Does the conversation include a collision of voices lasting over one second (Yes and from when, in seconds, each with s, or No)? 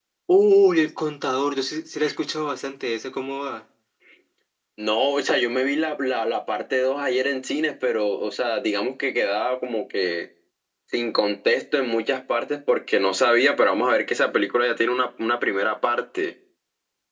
No